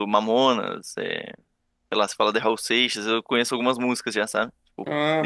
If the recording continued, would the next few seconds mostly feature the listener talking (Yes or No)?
Yes